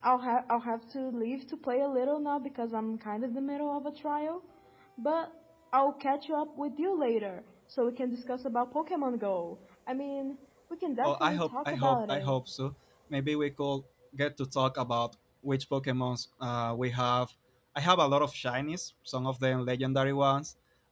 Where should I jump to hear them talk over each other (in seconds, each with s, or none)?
11.0 s